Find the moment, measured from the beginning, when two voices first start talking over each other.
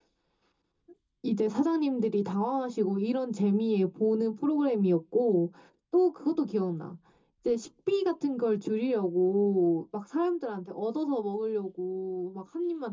none

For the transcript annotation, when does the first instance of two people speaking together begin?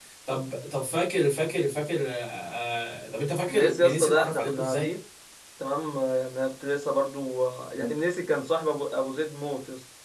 3 s

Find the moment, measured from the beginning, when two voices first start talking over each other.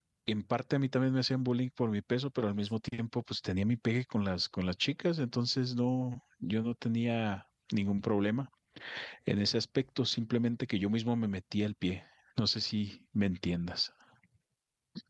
none

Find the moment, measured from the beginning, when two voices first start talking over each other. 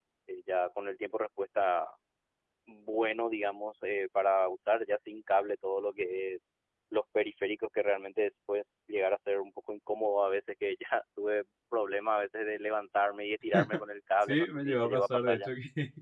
14 s

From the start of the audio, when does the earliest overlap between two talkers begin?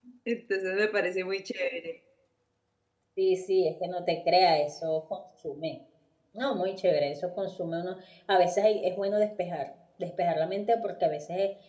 none

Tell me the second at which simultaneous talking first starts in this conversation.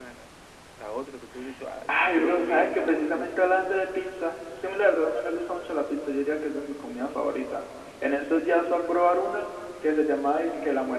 2 s

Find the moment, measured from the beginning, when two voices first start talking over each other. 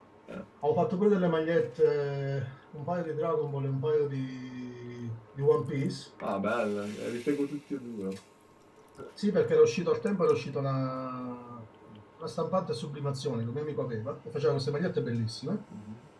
none

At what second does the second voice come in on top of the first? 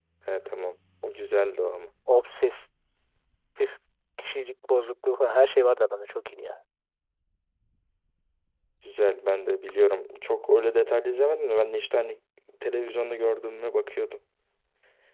none

